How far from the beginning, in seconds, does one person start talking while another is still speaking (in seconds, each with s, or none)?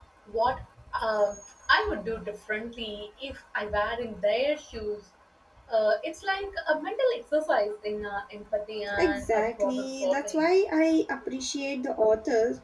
8.9 s